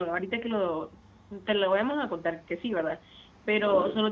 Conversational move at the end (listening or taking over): listening